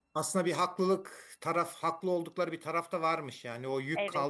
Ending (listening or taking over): listening